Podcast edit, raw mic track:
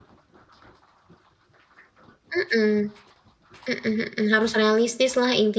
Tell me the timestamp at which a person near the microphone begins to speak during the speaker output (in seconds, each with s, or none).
2.3 s